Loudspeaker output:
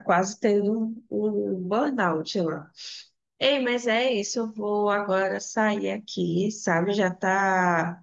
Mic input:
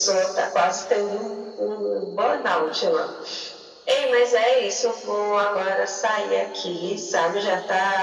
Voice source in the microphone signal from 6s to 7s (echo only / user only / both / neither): echo only